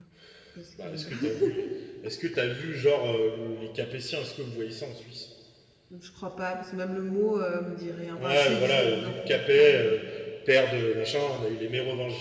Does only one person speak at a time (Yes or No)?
No